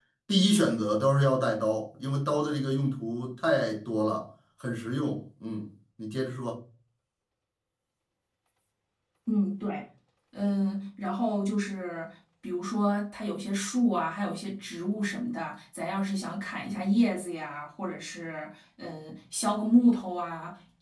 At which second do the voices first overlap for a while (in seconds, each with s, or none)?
none